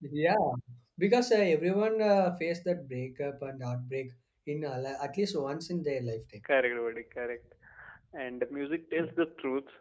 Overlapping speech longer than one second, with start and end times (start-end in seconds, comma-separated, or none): none